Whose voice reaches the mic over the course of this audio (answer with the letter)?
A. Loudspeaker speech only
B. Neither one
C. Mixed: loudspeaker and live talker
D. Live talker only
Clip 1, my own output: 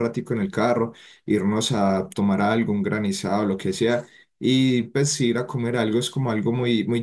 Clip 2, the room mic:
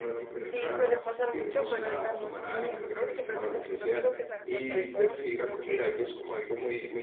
C